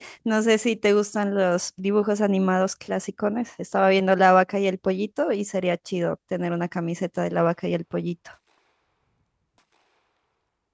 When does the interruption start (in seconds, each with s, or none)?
none